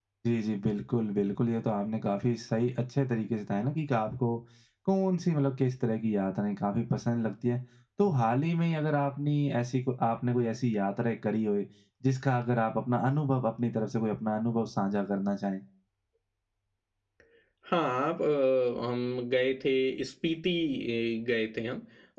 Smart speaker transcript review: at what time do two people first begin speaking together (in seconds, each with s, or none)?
none